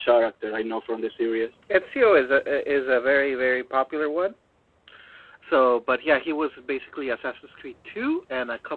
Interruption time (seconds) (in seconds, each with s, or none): none